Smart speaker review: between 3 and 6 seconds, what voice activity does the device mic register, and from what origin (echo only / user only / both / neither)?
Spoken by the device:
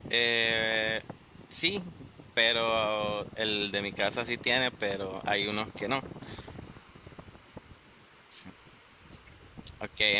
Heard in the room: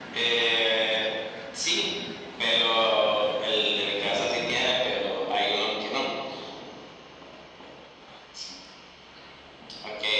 echo only